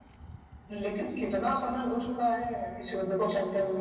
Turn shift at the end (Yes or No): Yes